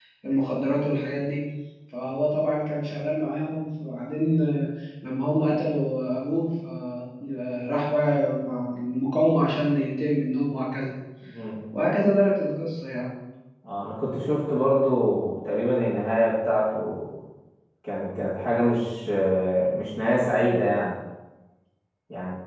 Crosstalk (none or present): none